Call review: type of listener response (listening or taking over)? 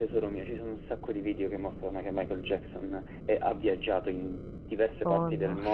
listening